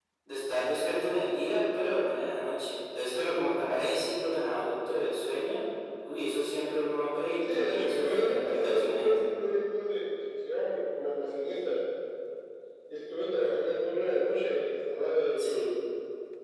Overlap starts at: 7.4 s

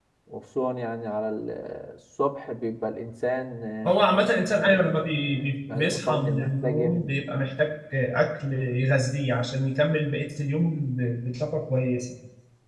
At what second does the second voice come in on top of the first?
4.6 s

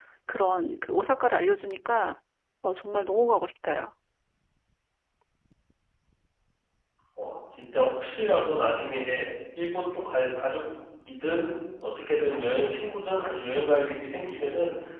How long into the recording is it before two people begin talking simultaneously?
none

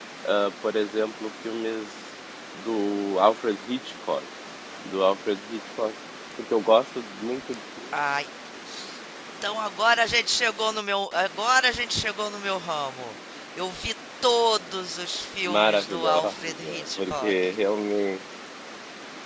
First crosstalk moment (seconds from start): 15.4 s

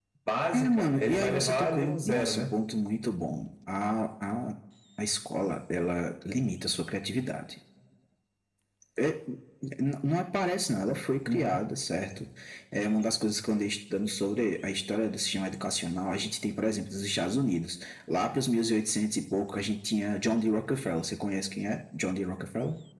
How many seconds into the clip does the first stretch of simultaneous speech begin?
0.5 s

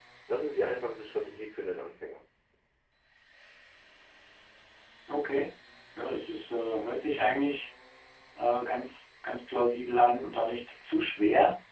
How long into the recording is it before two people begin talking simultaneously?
none

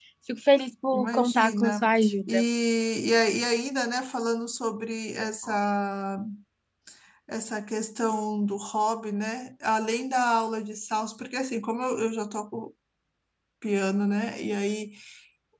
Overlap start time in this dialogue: 0.9 s

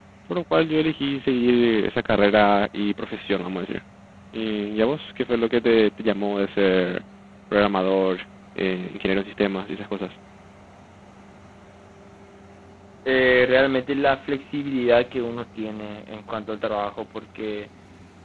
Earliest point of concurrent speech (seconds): none

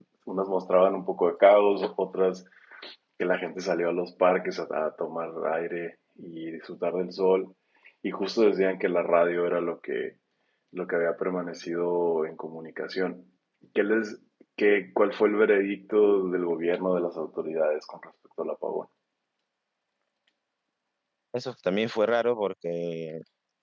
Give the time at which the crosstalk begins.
none

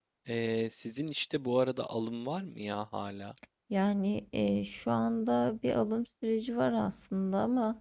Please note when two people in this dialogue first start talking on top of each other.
none

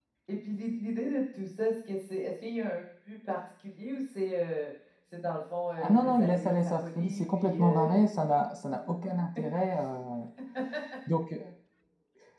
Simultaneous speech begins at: 5.8 s

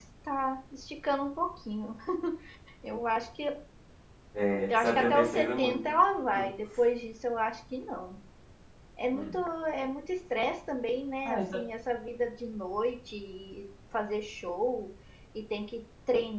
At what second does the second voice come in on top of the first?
4.7 s

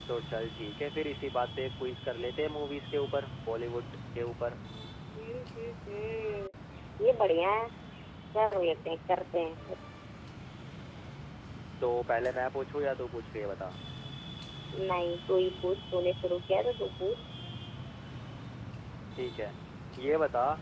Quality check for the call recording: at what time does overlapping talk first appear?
none

